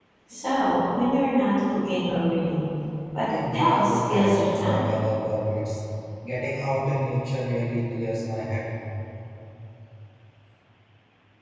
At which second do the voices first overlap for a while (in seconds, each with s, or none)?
3.5 s